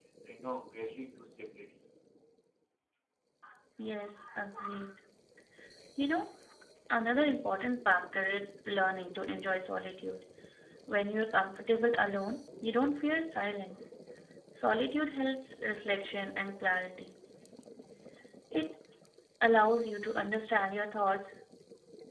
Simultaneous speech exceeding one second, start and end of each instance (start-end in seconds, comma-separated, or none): none